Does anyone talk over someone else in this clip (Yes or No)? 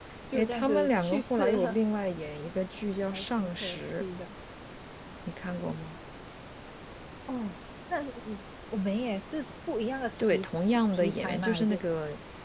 Yes